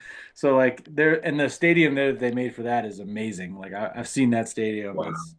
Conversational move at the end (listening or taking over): listening